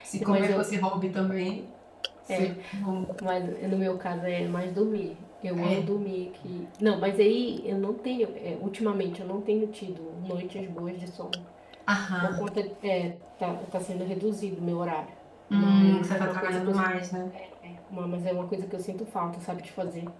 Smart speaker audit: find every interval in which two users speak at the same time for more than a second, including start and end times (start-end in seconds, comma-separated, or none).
15.5-16.7